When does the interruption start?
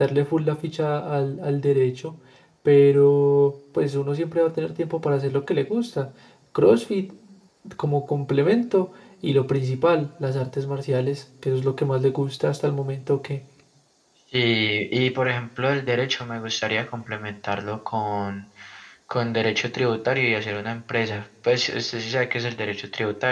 none

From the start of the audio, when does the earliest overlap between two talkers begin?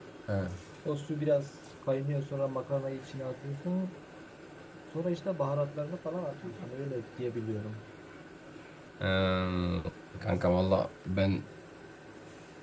none

